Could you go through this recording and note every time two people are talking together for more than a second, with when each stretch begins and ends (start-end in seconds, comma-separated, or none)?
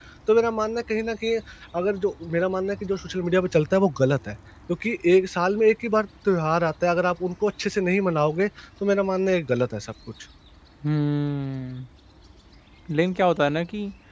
none